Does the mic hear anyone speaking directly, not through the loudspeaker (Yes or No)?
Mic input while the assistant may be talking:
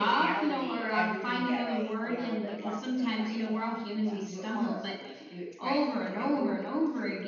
Yes